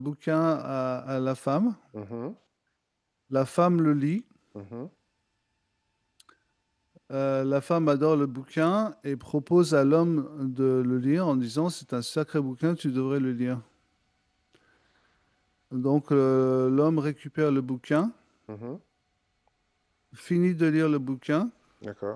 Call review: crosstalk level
none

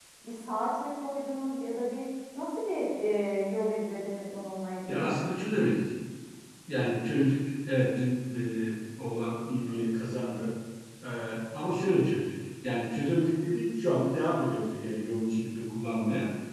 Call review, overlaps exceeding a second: none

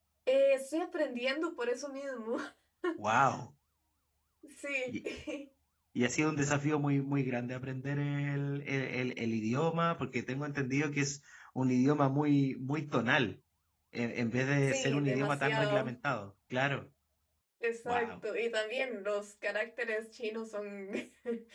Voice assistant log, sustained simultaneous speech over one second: present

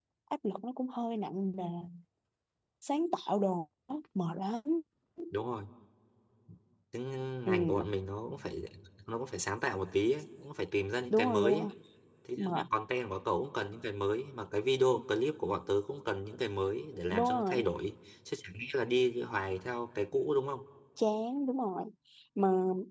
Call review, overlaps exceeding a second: none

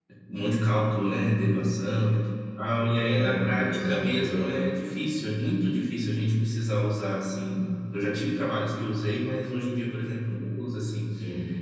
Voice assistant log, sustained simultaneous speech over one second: present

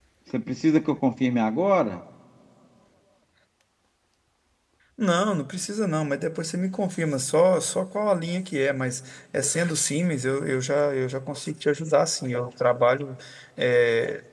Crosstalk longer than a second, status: none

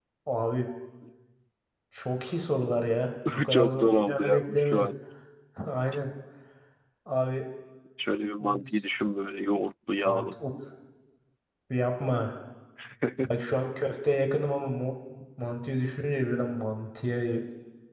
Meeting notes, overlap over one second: present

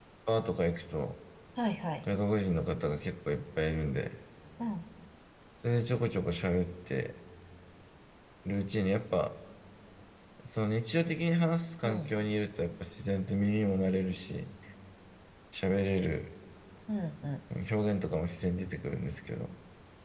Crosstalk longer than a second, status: none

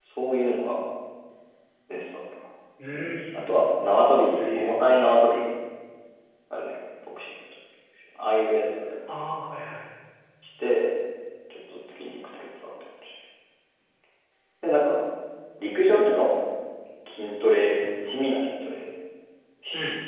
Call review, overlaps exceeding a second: none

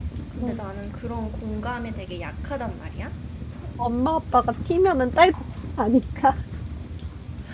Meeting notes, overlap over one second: none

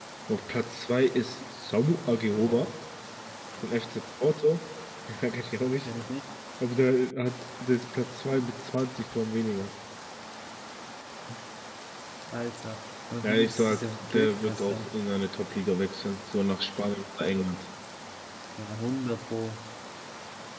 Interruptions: present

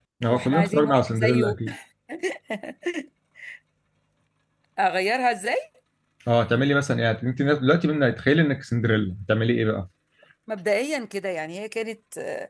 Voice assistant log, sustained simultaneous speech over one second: present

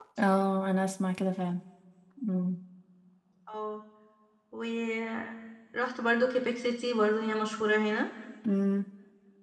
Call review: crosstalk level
none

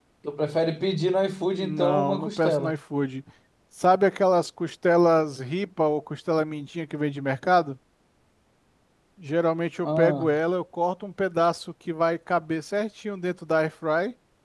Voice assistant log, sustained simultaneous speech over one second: present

